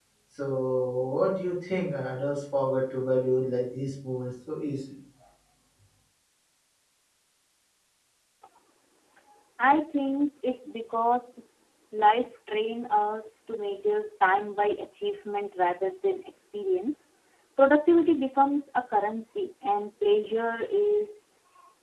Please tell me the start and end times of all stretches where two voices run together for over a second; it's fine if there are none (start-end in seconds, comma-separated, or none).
none